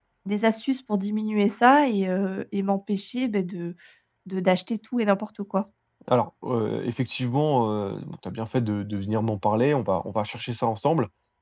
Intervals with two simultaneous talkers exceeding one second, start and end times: none

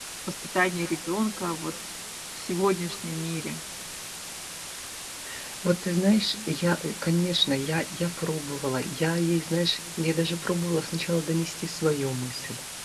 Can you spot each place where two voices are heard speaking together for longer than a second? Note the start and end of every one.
none

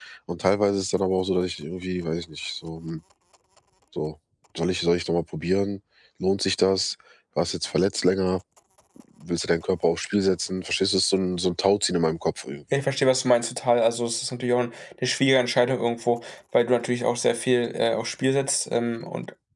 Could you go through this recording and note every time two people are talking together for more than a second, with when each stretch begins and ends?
none

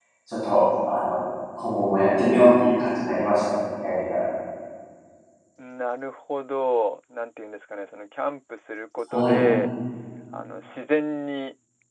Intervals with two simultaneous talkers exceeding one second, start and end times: none

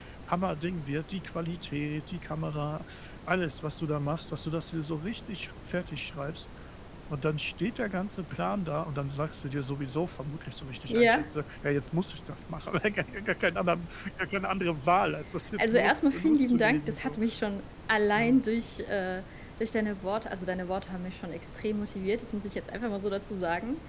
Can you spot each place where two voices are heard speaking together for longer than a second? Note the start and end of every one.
15.6-17.2

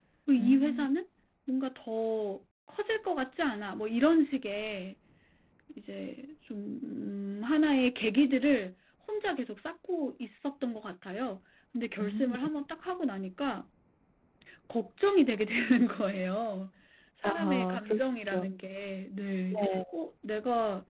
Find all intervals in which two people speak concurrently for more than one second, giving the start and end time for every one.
17.2-18.5

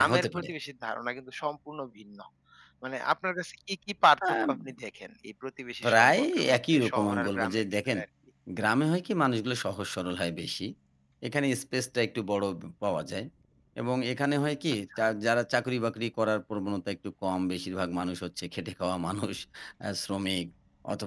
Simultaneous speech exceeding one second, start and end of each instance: 5.8-8.0

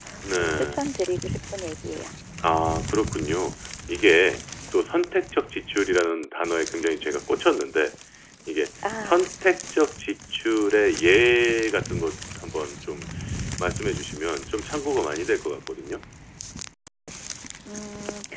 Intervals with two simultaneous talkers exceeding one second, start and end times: none

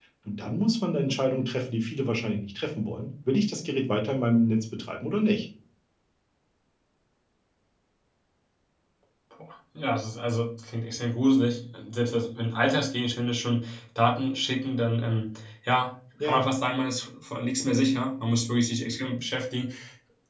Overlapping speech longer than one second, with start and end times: none

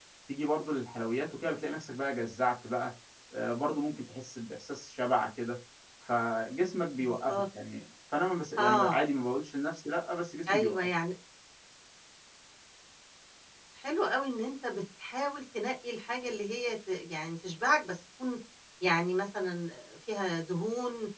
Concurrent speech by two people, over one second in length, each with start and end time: none

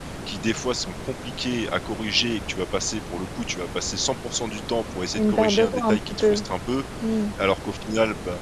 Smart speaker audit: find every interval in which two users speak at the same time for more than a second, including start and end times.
5.2-6.4

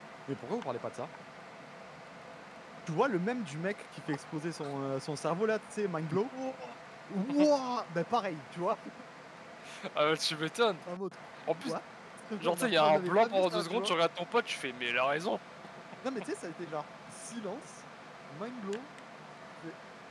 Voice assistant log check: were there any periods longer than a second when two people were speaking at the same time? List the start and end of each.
12.5-13.9

